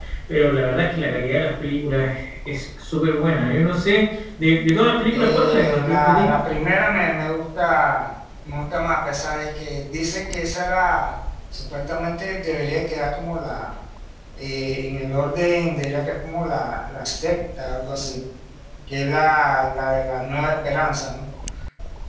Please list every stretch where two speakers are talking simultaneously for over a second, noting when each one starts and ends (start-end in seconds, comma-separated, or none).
5.1-6.3